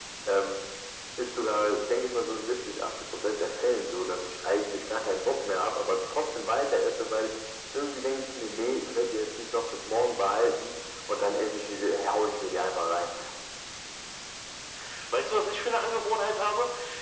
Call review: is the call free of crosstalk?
Yes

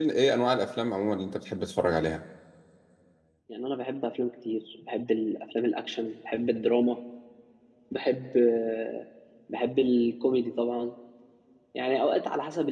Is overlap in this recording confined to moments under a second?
Yes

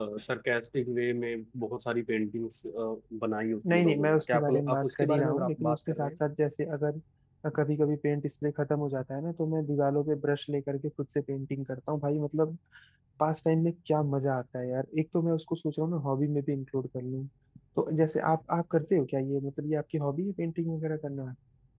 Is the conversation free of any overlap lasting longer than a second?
No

